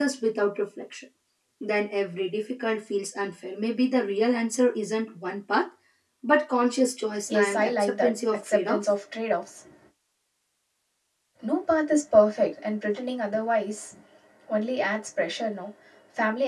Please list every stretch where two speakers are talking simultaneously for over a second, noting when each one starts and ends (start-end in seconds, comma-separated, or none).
7.3-8.8